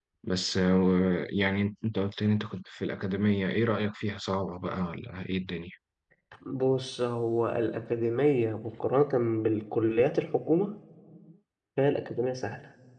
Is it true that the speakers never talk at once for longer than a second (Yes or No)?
Yes